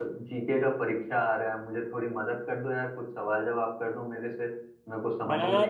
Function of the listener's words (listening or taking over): taking over